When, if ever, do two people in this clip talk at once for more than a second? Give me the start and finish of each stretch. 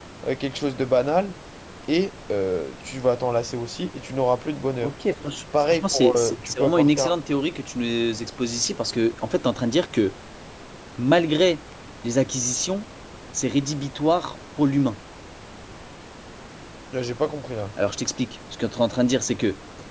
5.7-7.1

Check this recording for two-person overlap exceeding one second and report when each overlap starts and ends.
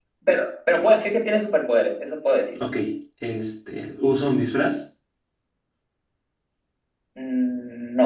none

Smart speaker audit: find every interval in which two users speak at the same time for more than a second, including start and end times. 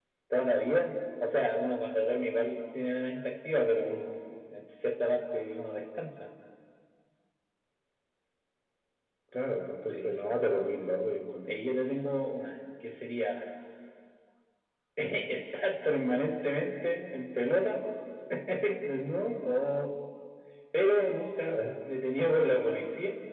none

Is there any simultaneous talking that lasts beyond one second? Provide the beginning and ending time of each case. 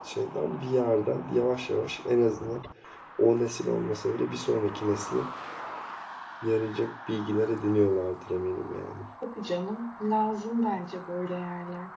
none

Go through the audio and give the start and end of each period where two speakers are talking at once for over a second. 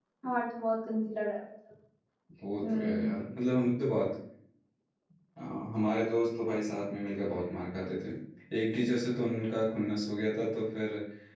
none

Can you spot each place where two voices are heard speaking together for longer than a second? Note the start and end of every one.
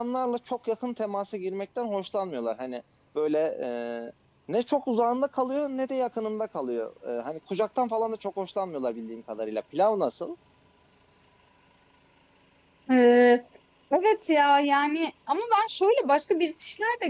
none

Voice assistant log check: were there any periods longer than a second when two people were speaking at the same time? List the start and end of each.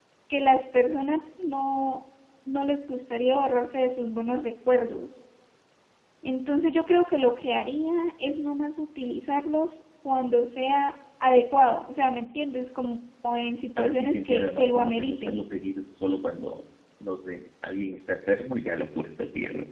13.8-15.4

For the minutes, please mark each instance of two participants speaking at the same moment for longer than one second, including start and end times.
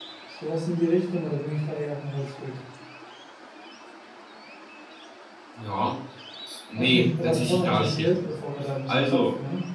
6.8-8.1

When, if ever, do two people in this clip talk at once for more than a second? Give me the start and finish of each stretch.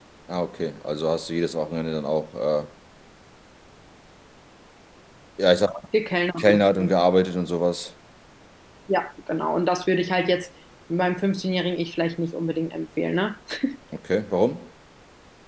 none

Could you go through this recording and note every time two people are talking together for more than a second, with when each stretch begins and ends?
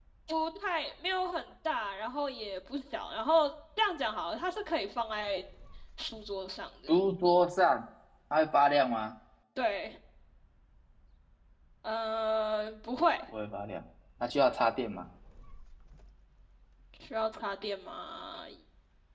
none

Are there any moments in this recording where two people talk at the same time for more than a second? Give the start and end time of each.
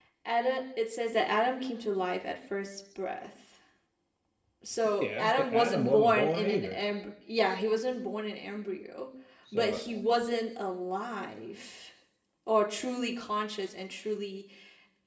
5.0-6.8

